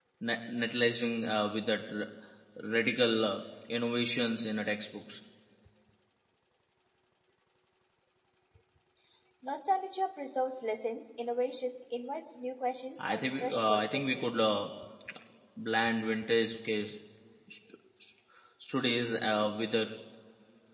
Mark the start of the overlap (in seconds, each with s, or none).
13.0 s